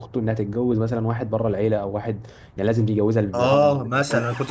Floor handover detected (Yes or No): Yes